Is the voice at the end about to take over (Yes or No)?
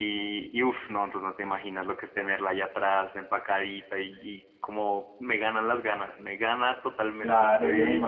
Yes